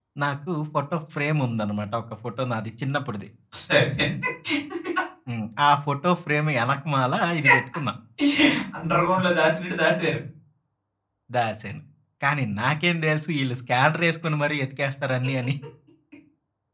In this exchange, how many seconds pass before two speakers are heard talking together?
none

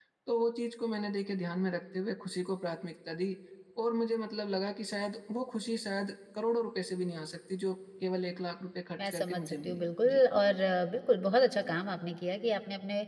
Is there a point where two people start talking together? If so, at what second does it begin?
9.0 s

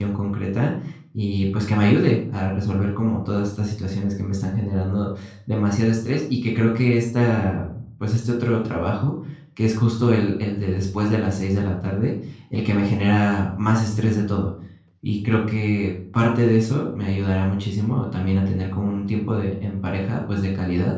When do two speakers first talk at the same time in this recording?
none

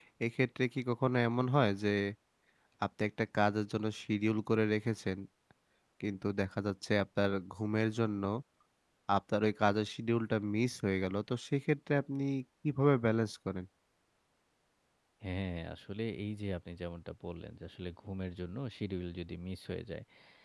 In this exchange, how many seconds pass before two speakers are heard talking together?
none

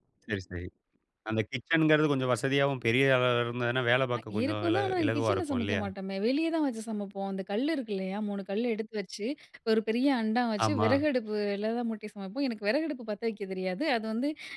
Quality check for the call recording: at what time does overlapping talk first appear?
4.3 s

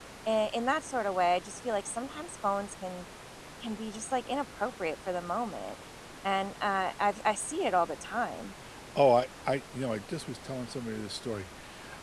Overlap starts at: none

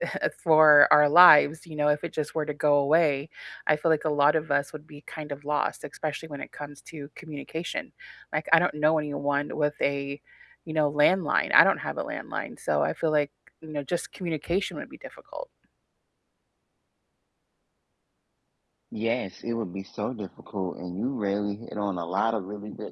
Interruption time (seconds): none

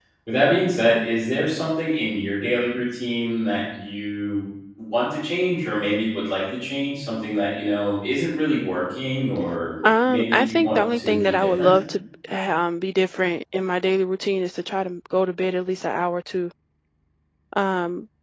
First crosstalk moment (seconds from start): 9.8 s

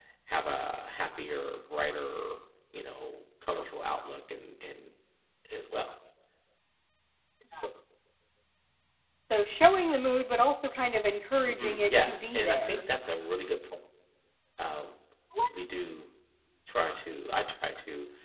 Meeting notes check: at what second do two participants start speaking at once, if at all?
11.4 s

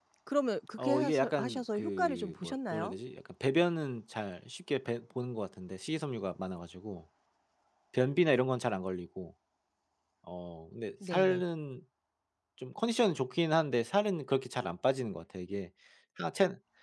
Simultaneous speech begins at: 0.8 s

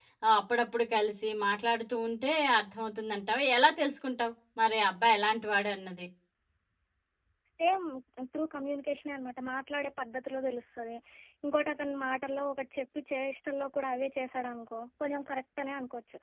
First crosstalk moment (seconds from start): none

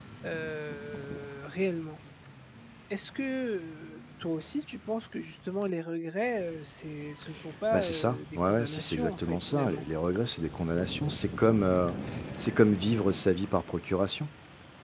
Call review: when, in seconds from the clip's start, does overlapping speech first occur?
7.7 s

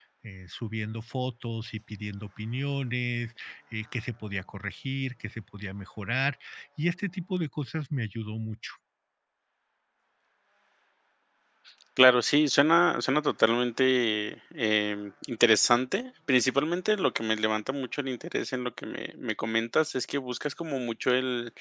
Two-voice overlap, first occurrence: none

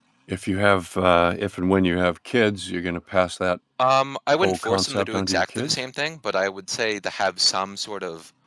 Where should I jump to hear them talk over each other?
4.4 s

